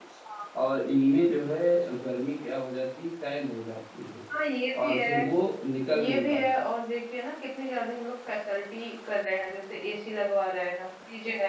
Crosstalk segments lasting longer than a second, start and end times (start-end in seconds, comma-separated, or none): none